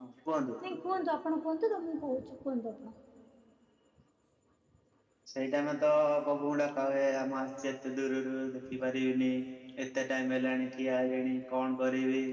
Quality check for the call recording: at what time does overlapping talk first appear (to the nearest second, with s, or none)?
none